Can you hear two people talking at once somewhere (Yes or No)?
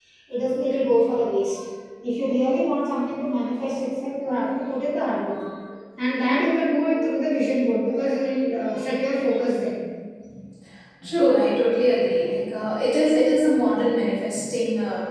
No